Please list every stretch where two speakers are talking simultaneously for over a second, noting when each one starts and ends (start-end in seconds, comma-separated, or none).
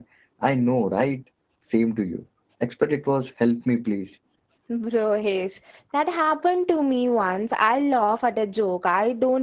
none